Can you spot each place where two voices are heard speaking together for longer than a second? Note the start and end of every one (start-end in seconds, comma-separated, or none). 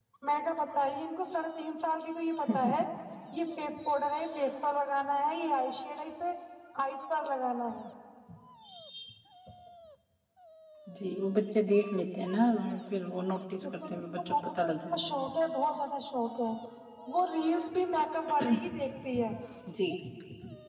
13.6-15.1